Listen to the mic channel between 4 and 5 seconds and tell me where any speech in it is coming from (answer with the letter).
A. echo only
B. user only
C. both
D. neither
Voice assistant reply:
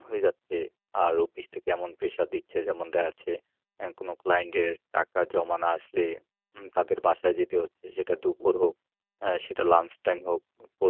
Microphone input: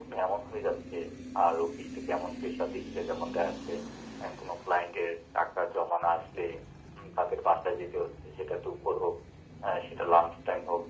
A